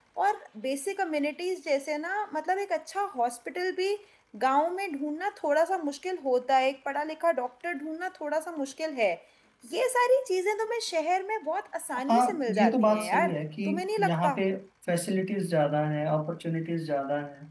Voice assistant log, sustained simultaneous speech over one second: present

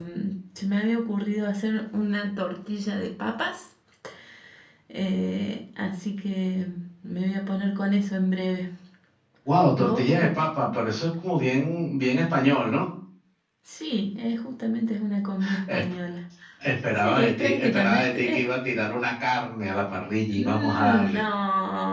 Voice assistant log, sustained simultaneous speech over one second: present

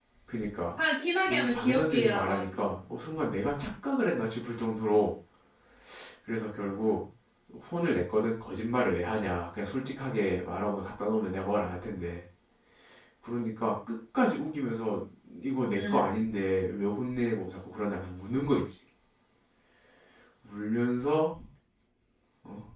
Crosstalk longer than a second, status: present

